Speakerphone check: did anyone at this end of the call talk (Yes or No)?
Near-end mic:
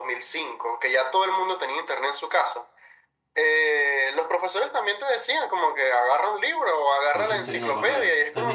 Yes